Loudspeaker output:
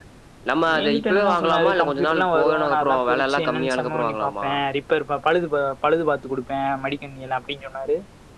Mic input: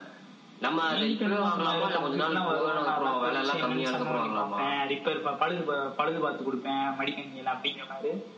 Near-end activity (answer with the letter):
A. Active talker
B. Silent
B